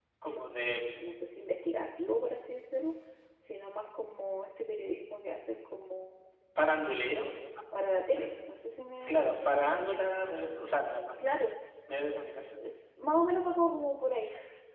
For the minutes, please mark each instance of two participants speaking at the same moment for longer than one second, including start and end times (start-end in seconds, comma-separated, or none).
none